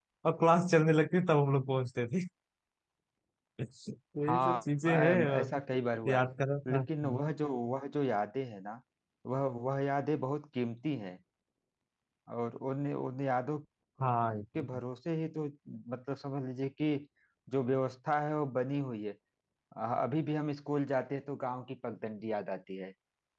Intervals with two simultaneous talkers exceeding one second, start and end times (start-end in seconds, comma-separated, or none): 4.3-5.5